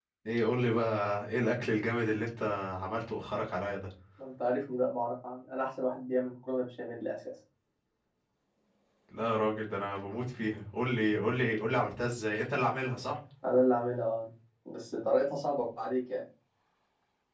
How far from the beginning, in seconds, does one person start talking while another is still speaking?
none

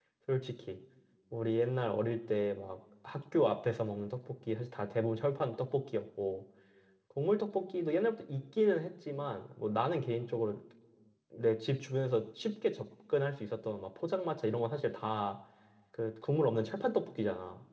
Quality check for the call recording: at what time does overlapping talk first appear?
none

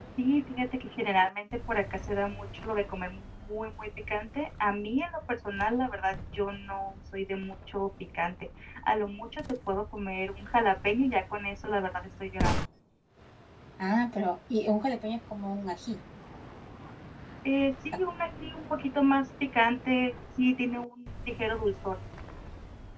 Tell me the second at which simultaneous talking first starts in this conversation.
none

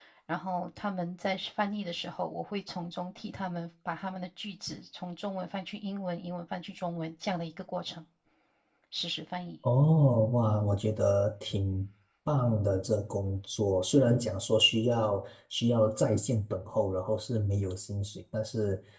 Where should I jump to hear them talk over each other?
none

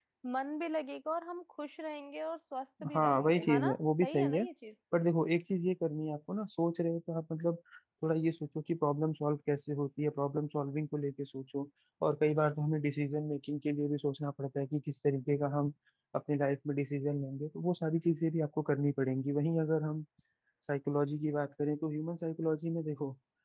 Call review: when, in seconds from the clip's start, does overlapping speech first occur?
2.8 s

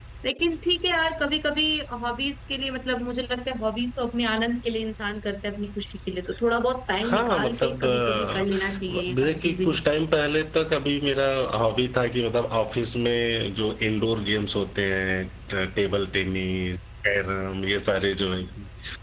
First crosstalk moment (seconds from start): 7.0 s

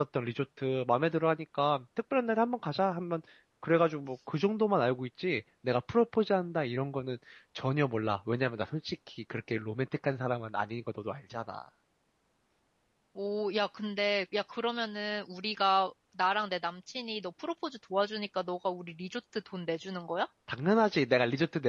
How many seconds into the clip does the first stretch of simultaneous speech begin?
none

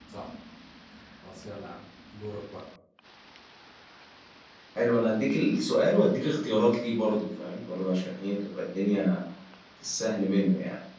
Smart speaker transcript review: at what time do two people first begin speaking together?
none

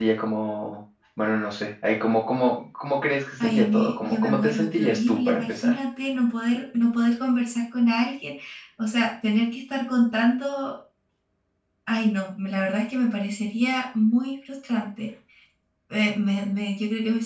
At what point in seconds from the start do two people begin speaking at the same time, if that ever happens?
3.4 s

